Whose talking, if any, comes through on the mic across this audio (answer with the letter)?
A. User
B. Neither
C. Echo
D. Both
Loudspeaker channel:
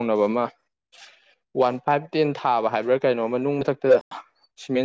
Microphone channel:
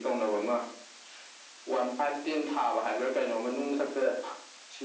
C